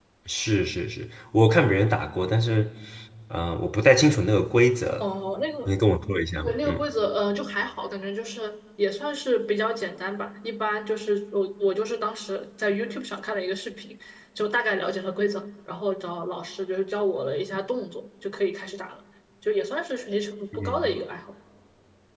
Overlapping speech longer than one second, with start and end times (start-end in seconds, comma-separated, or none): none